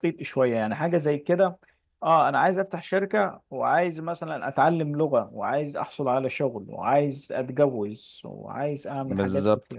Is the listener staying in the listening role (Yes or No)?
No